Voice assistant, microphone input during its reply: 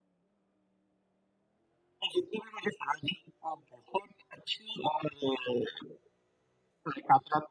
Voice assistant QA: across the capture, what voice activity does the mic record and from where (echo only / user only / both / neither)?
echo only